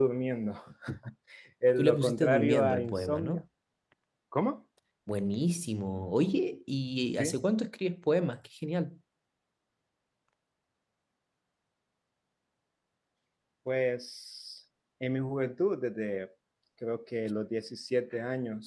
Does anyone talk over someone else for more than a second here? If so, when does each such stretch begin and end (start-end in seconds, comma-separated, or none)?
1.8-3.4